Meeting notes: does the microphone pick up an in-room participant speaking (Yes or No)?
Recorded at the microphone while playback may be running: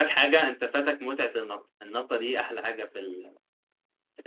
Yes